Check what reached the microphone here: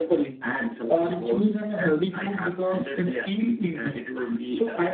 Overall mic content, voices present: echo only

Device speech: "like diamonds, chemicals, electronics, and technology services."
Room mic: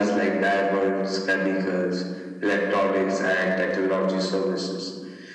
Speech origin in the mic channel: echo only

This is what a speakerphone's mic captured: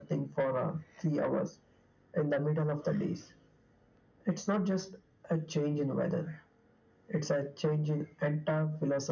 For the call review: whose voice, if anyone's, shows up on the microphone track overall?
echo only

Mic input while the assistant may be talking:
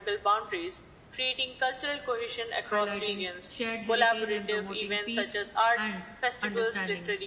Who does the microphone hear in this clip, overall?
both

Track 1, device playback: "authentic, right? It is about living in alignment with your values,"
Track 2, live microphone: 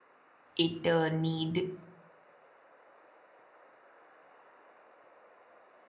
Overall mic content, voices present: user only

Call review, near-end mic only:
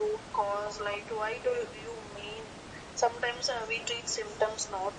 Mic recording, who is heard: echo only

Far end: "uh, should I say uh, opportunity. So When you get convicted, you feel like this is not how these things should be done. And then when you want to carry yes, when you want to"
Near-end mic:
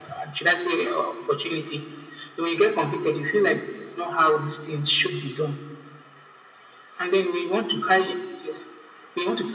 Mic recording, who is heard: echo only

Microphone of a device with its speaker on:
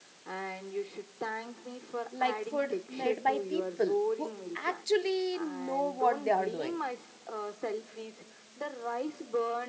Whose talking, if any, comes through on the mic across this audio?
both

